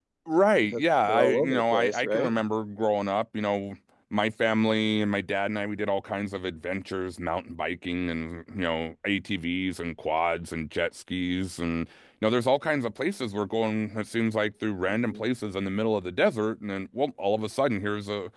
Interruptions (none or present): present